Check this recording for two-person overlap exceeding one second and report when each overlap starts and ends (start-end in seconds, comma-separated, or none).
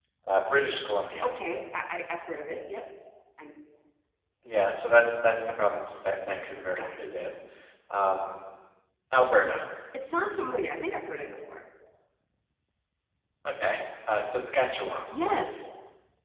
none